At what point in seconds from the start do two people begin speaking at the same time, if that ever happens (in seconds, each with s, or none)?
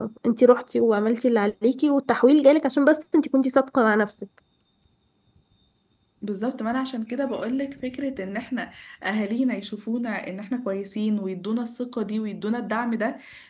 none